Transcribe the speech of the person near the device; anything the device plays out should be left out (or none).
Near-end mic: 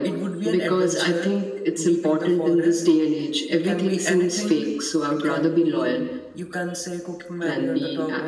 none